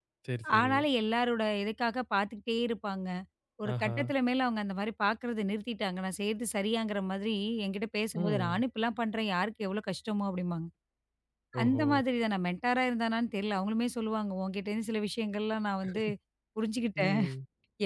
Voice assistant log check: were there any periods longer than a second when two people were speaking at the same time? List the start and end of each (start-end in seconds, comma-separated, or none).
none